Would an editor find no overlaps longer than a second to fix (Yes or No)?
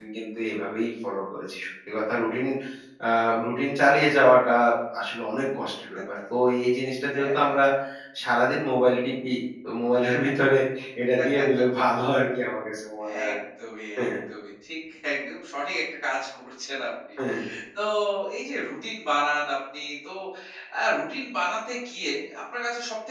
Yes